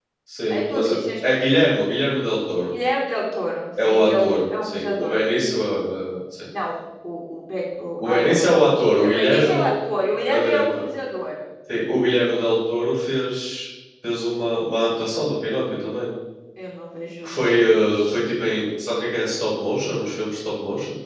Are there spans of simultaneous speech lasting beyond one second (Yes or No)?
Yes